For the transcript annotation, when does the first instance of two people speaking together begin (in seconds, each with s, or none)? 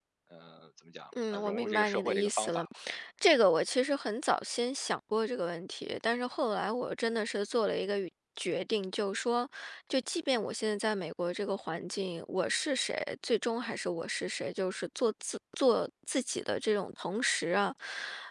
1.1 s